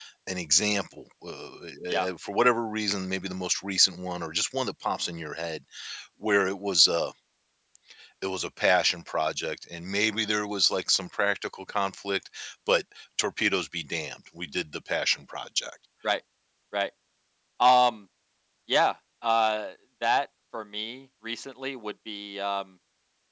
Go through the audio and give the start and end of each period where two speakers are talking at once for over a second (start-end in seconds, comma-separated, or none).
none